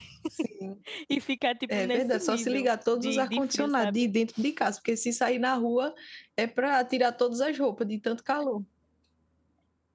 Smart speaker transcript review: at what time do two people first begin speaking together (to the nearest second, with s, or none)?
2 s